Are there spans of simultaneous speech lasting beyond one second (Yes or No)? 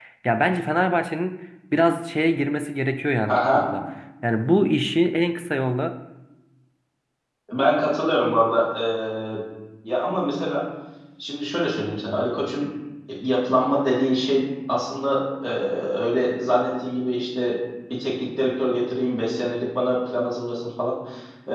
No